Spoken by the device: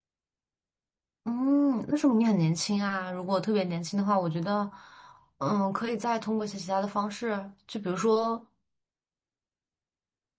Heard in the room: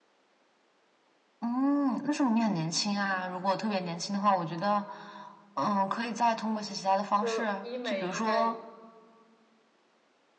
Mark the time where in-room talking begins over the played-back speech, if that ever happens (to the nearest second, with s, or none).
7 s